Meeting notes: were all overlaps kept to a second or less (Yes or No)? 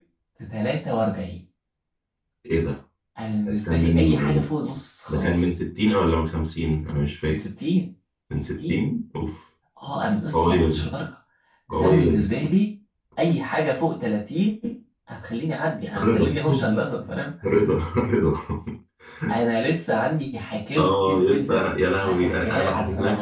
No